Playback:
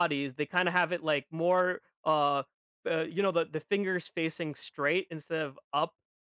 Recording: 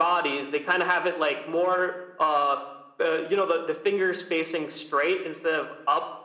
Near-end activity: none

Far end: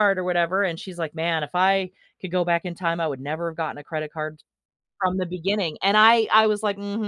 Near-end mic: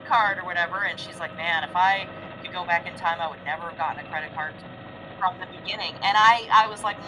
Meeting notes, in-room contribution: none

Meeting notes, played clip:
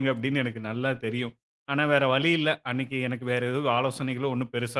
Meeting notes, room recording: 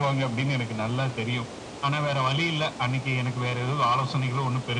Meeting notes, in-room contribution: none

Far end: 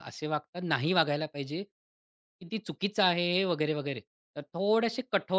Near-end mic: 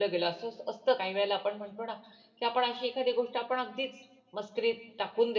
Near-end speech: present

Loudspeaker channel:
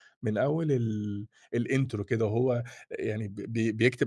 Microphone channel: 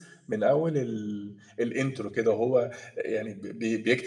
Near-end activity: none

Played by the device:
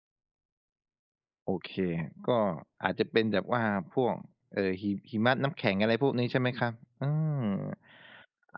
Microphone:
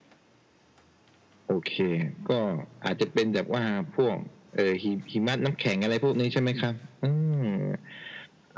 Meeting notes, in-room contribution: none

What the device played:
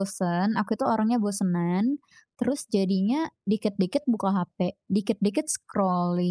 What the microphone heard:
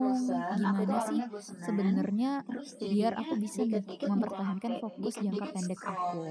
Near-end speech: present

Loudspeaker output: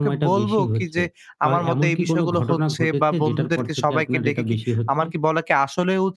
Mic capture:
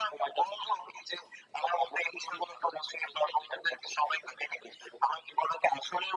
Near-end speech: none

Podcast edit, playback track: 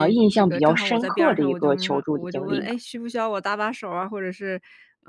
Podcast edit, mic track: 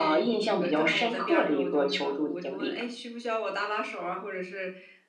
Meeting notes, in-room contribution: none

